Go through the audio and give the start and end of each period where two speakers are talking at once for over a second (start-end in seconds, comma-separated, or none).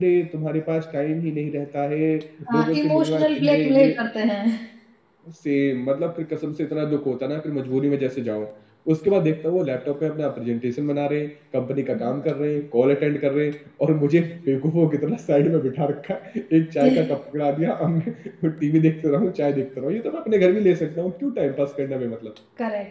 2.5-3.9